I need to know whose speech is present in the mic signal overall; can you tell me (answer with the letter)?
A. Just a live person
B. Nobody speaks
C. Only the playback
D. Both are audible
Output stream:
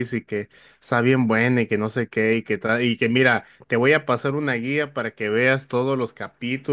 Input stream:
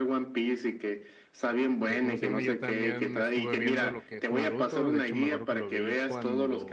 D